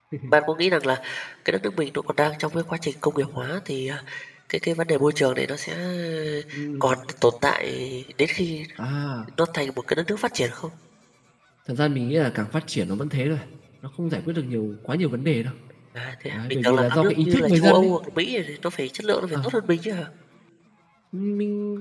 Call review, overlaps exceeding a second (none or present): present